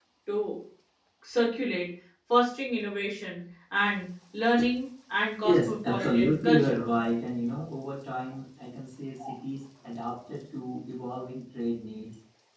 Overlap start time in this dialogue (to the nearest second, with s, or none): 5 s